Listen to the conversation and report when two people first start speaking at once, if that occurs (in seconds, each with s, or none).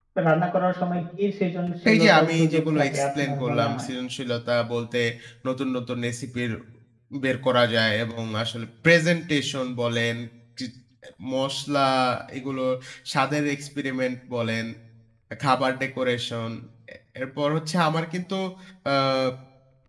1.8 s